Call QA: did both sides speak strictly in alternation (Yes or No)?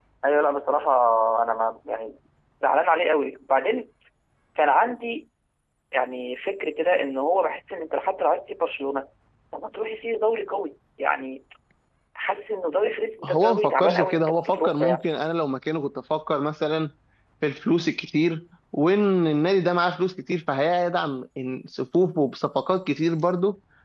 No